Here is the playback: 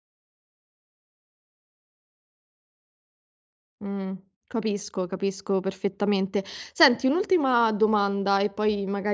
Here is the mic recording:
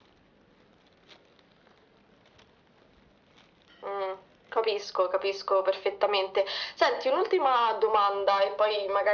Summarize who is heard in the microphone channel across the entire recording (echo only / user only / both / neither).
echo only